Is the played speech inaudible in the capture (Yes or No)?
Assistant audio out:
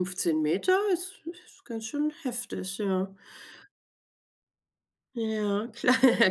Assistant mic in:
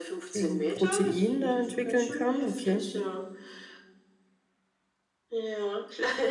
No